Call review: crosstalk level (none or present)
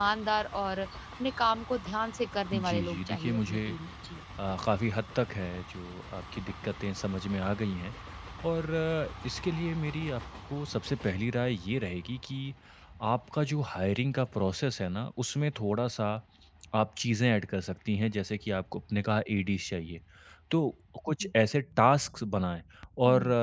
present